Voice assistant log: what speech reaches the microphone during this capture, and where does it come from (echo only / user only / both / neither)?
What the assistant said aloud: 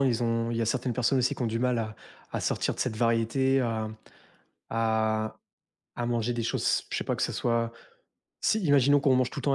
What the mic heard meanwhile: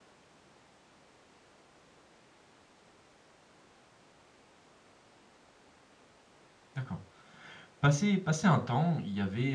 user only